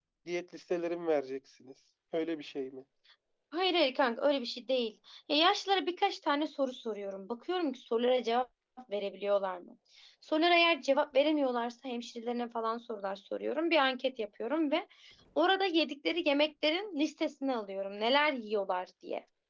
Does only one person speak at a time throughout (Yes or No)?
Yes